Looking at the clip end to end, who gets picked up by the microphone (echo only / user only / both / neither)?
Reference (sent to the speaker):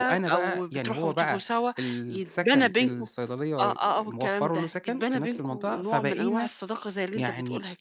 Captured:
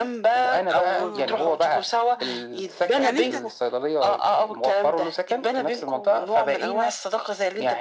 both